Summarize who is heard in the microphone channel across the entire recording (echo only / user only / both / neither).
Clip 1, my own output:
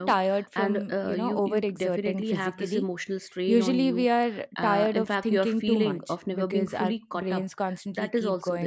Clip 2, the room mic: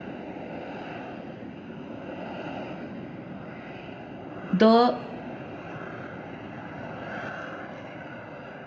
user only